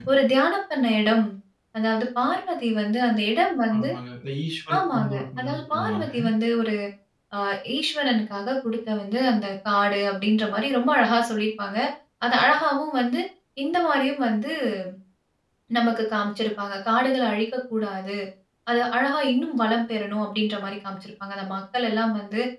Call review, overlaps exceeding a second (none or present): present